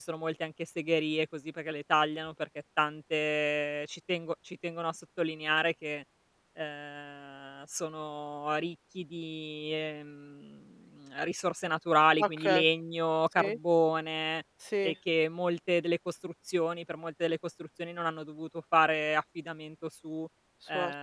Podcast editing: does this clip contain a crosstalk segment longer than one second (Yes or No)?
No